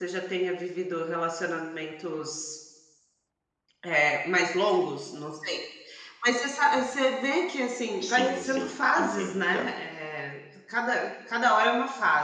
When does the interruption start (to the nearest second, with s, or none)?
8 s